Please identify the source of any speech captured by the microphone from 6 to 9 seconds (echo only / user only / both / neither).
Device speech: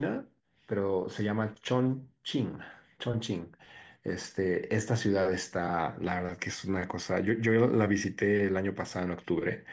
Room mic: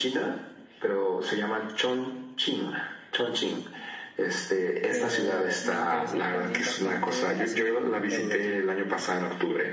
both